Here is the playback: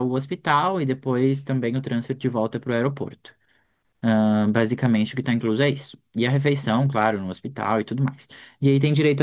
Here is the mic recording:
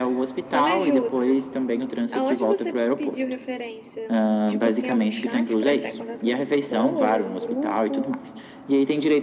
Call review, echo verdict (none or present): present